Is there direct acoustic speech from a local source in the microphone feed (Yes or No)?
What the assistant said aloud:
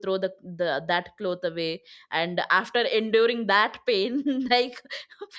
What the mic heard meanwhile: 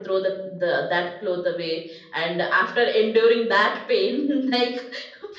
No